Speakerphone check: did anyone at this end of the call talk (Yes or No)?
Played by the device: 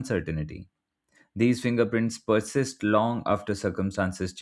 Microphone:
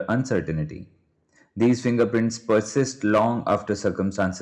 No